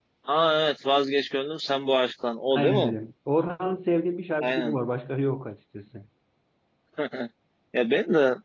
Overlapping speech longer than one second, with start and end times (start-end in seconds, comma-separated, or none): none